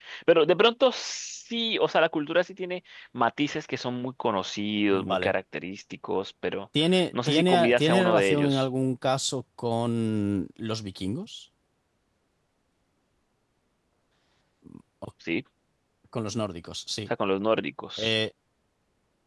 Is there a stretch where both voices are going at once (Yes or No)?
Yes